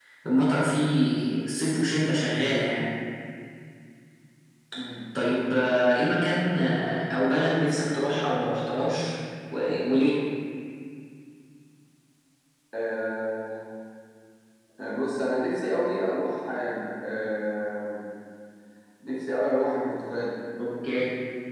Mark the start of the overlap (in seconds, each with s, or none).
none